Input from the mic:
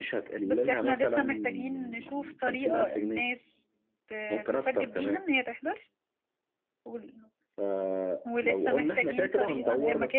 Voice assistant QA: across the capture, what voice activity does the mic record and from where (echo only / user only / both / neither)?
both